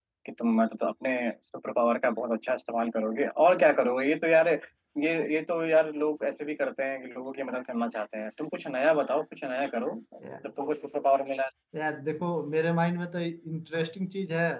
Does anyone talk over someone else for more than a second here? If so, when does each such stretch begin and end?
none

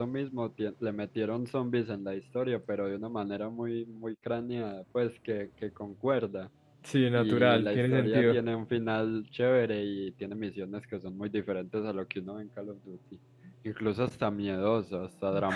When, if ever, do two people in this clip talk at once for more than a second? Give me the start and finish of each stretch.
7.2-8.4

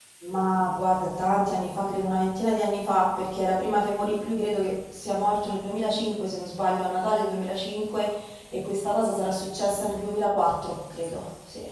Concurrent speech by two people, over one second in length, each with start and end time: none

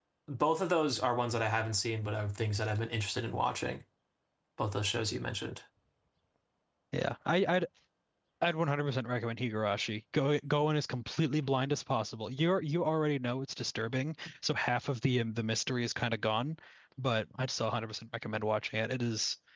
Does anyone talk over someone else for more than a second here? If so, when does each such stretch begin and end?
none

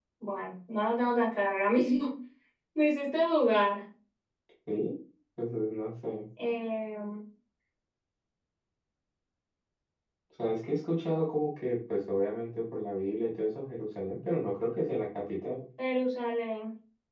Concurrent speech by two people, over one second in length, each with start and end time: none

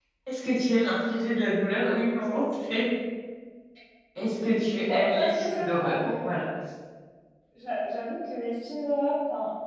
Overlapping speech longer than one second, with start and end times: 4.9-6.3

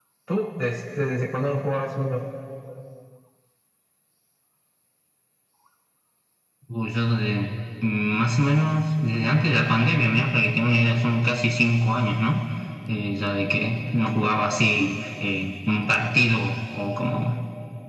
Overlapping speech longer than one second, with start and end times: none

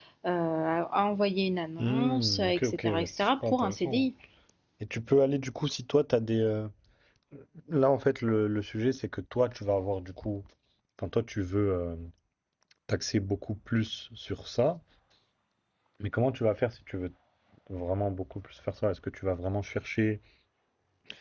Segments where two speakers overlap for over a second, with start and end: 1.8-4.0

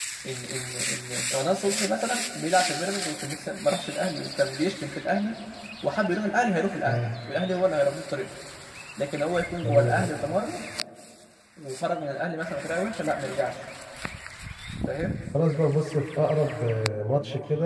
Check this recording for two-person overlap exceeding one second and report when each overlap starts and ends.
none

